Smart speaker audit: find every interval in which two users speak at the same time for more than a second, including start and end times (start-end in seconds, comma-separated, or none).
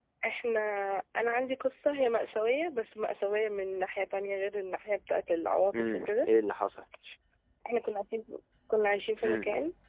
none